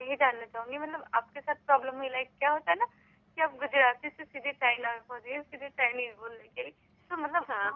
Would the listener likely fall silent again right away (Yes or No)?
Yes